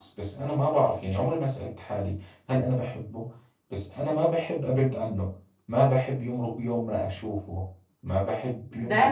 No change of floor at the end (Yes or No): No